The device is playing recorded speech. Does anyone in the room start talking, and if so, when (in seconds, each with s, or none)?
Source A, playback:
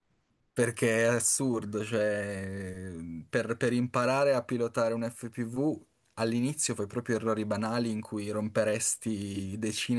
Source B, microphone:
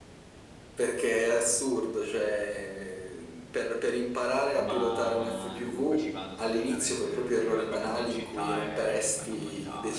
4.5 s